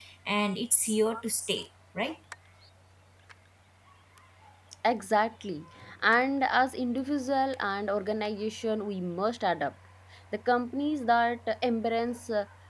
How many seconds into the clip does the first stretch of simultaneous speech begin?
none

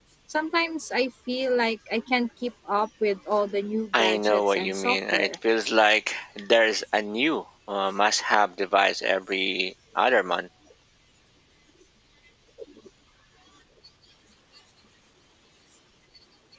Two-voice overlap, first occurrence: 4 s

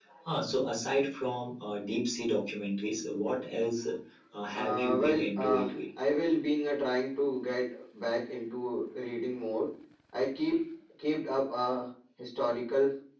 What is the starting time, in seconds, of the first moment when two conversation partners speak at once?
5 s

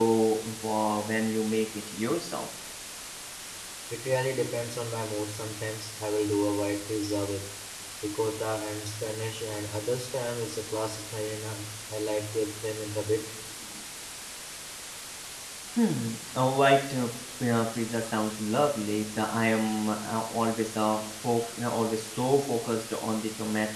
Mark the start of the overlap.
none

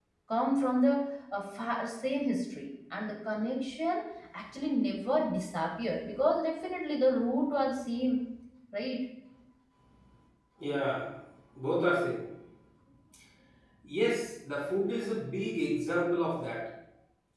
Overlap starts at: none

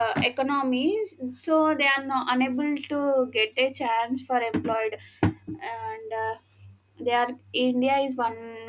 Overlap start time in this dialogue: none

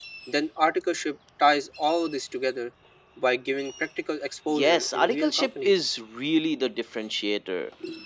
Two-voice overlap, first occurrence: 4 s

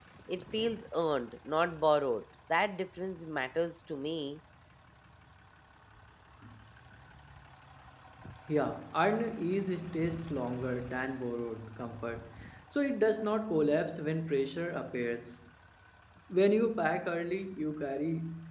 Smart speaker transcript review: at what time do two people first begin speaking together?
none

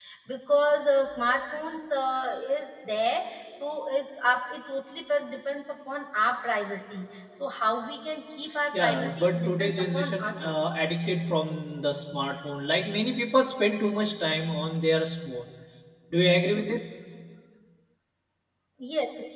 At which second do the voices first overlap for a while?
9 s

